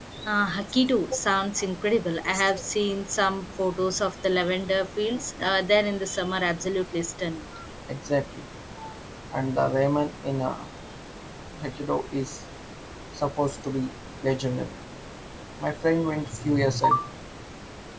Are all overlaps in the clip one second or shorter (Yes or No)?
Yes